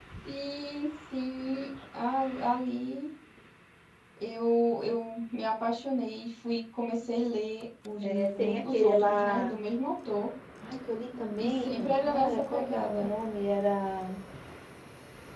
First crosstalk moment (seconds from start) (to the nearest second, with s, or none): 8 s